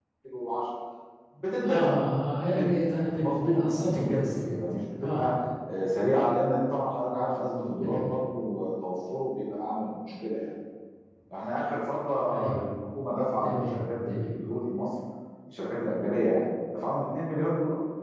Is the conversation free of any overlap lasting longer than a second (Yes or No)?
No